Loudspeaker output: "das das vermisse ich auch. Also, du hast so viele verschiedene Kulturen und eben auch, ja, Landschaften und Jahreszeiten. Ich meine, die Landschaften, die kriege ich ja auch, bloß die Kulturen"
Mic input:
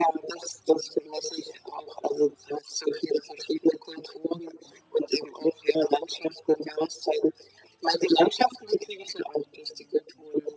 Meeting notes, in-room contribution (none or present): none